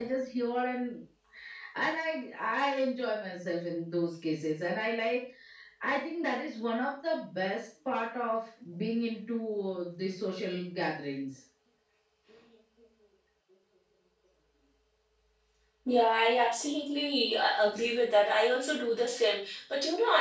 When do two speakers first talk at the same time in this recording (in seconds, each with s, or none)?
none